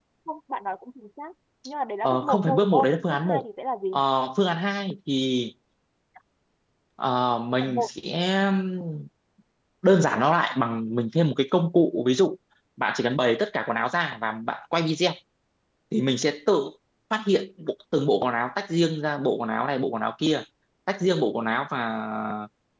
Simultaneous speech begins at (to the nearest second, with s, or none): 2 s